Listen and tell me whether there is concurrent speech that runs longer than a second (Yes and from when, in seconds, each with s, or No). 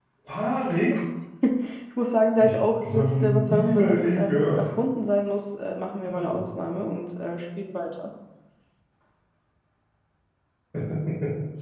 Yes, from 2.4 s